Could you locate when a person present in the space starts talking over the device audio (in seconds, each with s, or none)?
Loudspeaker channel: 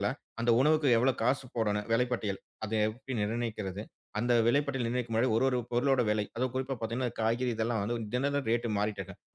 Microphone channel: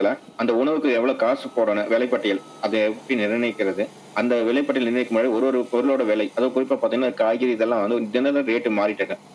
none